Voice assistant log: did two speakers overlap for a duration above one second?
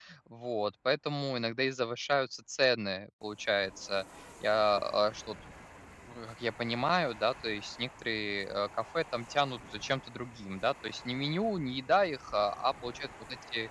No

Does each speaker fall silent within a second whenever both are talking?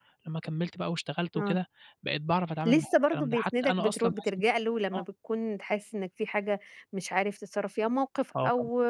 No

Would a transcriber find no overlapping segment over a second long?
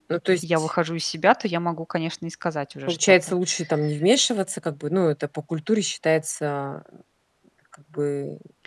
Yes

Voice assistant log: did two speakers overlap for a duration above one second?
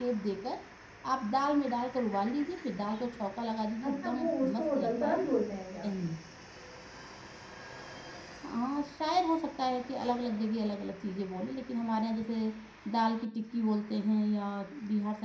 Yes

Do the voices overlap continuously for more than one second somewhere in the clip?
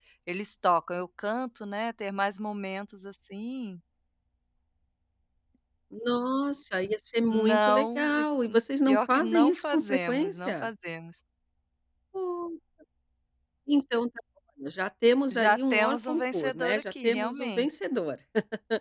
Yes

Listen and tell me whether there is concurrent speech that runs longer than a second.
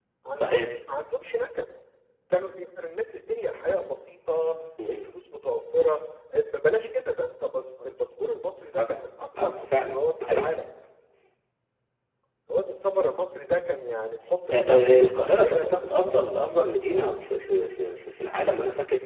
Yes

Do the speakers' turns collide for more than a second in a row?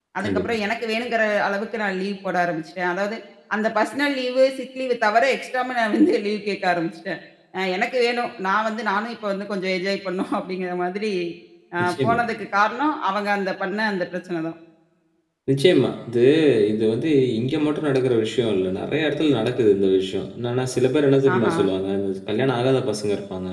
No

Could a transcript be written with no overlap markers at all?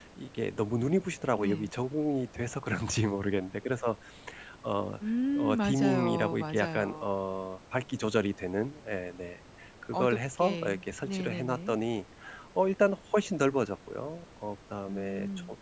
No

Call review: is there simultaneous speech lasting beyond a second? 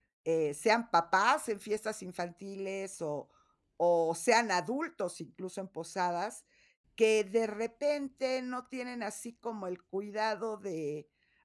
No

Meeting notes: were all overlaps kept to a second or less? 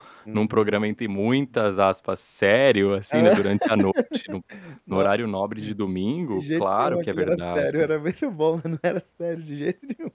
No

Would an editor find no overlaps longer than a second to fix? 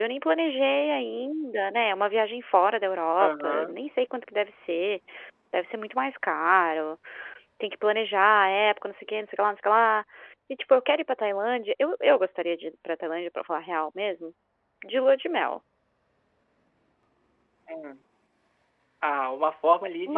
Yes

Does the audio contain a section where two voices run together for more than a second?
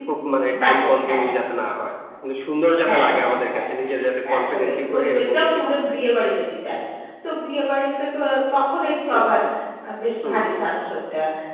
Yes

